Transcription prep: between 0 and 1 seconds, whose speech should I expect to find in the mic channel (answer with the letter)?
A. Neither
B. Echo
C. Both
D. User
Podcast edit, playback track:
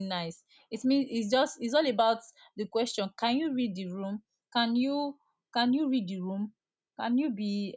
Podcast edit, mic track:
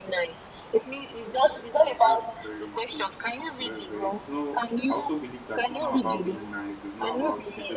B